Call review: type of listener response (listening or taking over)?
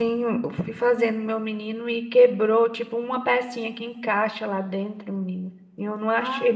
listening